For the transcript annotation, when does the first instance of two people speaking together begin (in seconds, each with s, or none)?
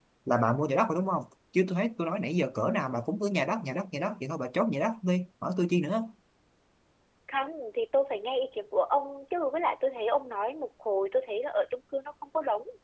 none